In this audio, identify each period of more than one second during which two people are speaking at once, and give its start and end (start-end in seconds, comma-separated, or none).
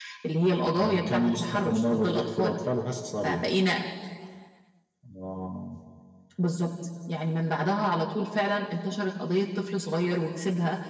0.8-2.6